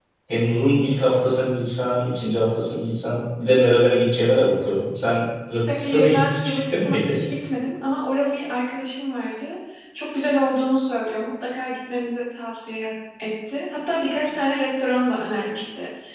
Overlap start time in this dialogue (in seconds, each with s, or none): 5.7 s